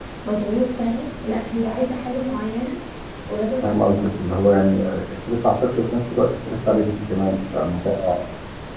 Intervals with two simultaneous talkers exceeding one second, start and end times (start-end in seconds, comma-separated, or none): none